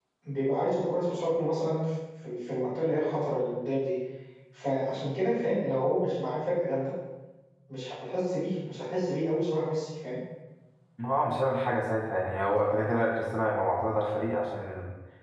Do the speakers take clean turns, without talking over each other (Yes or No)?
Yes